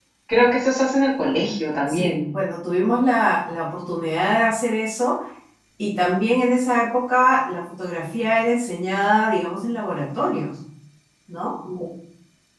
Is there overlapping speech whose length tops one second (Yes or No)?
No